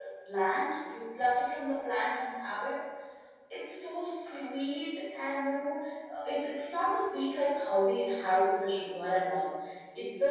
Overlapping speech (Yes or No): No